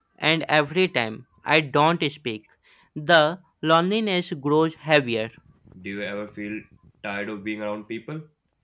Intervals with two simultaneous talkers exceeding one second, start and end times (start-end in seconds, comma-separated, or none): none